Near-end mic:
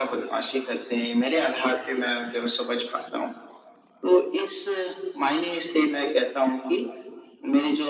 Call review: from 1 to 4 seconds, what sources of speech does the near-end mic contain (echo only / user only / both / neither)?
echo only